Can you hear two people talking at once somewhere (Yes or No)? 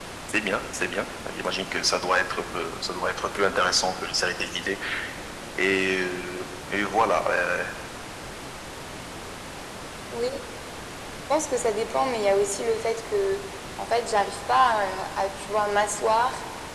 No